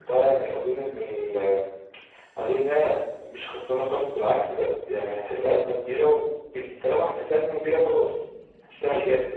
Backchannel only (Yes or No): No